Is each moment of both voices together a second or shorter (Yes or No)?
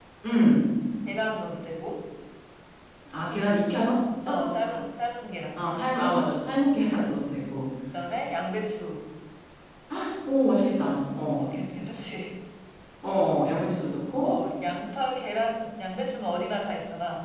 Yes